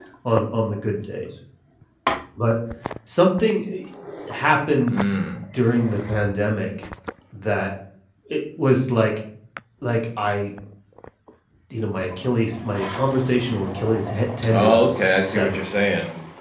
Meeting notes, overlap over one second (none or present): present